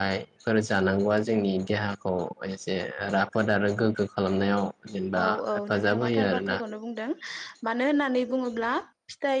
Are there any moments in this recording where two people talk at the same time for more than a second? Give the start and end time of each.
5.2-6.6

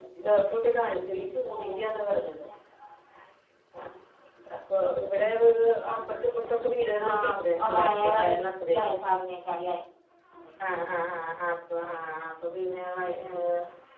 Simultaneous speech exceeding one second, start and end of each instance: 7.1-8.3

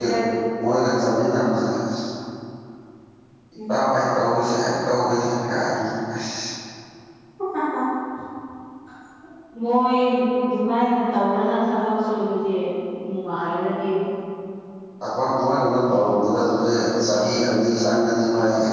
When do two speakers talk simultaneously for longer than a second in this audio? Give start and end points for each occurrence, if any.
none

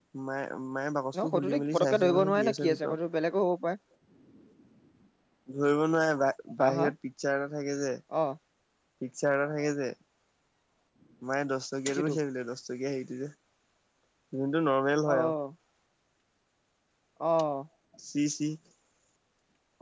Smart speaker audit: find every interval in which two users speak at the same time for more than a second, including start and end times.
1.2-3.0

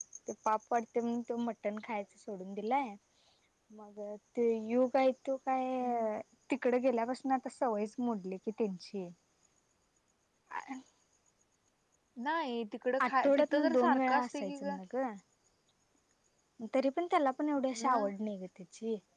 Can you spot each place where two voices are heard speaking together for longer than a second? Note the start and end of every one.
13.0-14.8

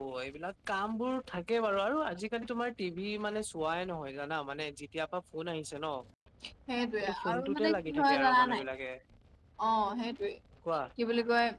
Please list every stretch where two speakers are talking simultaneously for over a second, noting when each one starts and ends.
7.0-8.6

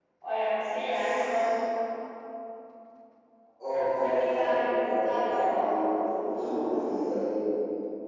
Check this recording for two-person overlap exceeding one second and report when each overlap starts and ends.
4.0-5.5

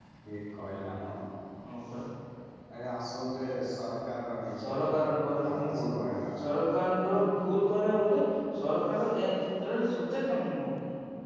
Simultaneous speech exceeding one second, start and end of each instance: none

